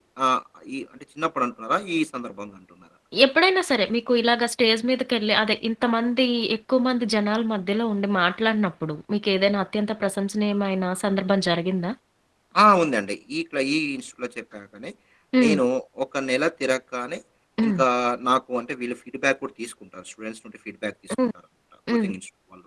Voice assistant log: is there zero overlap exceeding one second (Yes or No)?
Yes